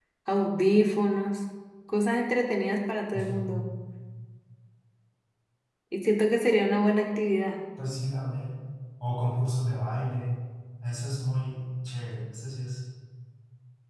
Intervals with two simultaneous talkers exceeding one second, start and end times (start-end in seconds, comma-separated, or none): none